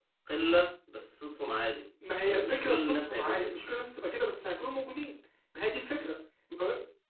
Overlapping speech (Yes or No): Yes